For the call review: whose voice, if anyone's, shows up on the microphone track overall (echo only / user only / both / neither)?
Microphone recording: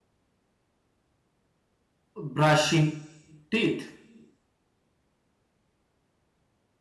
user only